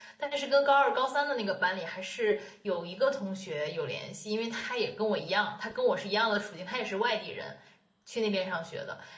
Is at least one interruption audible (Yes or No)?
No